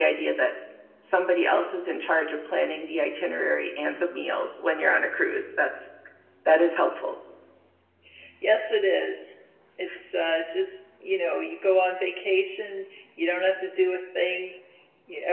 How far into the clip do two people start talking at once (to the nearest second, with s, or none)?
none